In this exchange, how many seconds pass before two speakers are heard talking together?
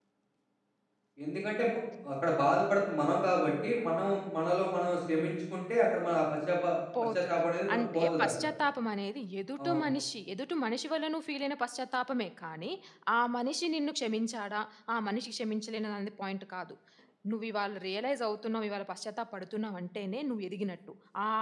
7.2 s

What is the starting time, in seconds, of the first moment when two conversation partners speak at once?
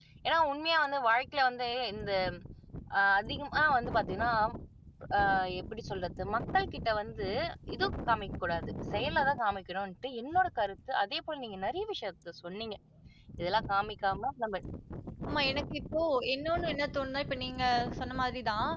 none

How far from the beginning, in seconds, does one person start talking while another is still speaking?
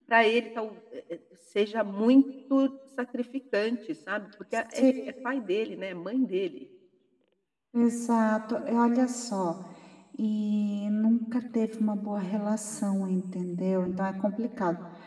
none

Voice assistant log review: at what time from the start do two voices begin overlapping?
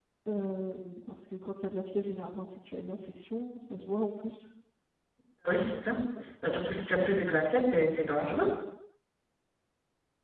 none

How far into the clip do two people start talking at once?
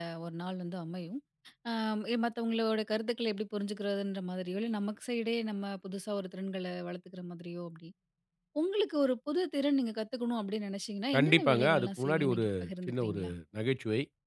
11.1 s

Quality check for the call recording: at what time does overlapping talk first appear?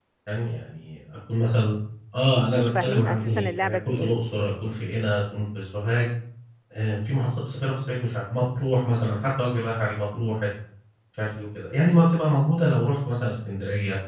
2.5 s

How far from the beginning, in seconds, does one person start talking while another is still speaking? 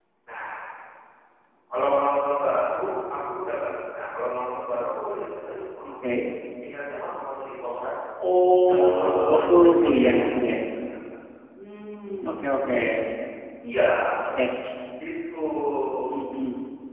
8.7 s

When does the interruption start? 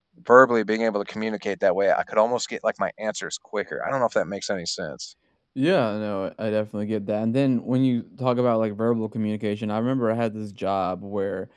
none

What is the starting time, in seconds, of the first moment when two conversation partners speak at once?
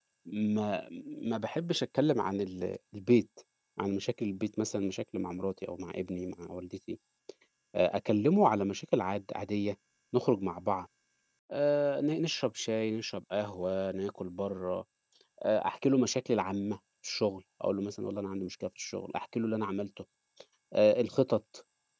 none

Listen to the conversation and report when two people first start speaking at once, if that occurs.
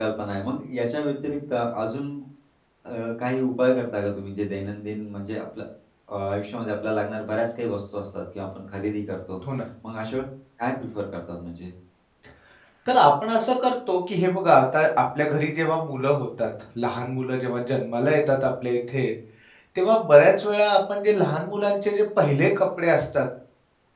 none

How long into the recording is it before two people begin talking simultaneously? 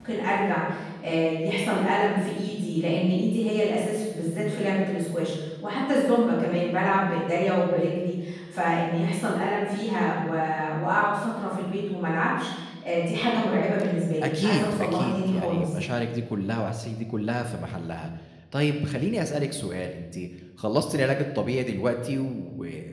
14.2 s

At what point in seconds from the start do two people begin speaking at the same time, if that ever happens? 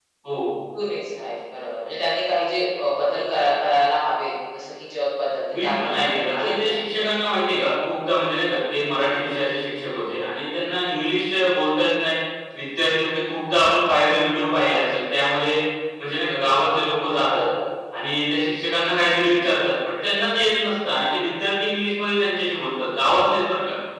5.5 s

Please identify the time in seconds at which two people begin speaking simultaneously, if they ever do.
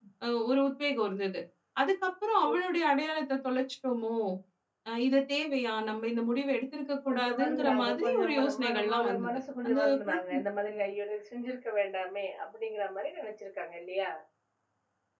7.0 s

